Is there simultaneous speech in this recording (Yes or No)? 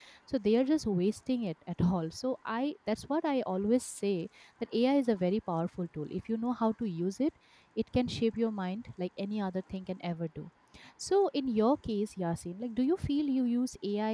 No